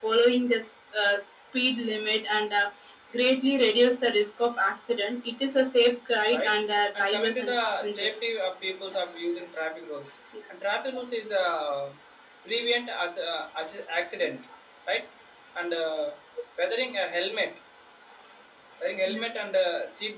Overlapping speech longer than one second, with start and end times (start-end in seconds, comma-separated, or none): 7.0-8.2